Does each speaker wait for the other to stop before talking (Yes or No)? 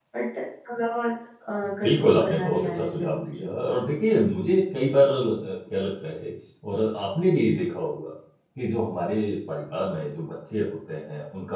No